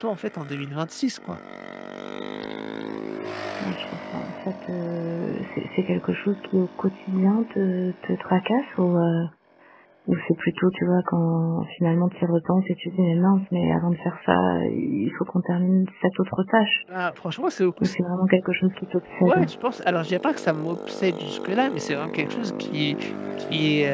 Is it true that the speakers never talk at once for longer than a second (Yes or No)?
Yes